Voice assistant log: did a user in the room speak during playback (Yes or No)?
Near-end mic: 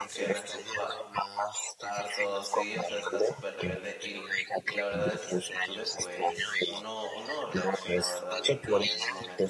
Yes